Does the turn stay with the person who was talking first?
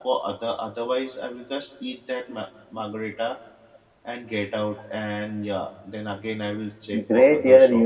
No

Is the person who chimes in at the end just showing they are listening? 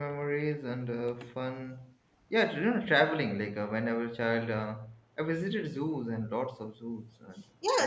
No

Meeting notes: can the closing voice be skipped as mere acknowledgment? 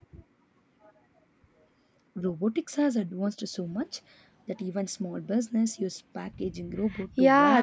No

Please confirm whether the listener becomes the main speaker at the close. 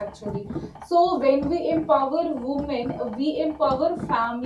No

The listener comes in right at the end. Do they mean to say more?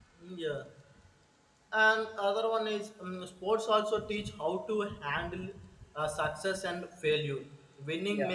No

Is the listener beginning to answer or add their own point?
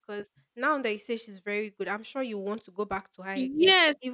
Yes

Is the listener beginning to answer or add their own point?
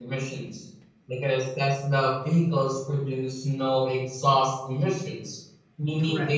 No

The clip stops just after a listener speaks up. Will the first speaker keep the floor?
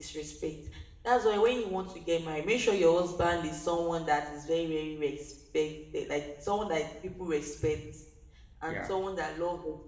Yes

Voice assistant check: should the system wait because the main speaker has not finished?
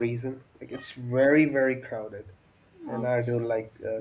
Yes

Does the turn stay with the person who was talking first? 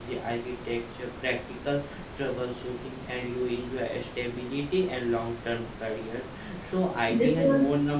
Yes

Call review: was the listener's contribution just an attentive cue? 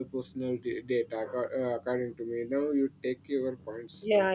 No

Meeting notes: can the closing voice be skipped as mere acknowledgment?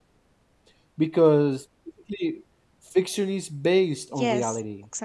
No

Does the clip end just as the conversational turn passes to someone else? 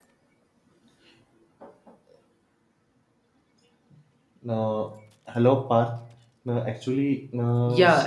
Yes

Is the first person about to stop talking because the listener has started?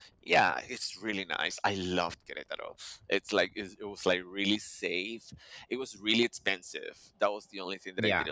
No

